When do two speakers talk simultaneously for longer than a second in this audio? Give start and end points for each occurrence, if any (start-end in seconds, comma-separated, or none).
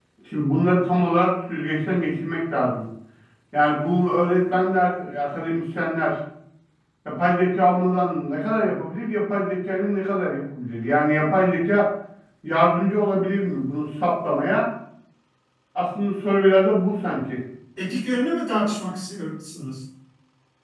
none